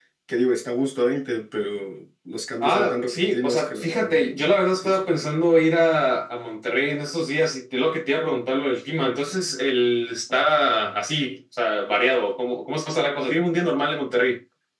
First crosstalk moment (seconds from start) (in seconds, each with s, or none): 2.6 s